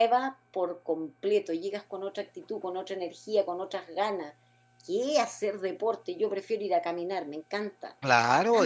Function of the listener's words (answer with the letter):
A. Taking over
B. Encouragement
A